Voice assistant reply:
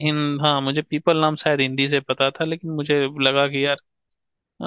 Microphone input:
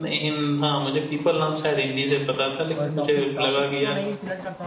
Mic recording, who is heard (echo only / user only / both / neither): both